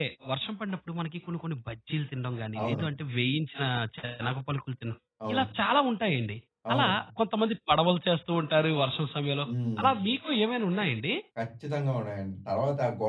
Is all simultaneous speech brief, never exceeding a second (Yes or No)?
Yes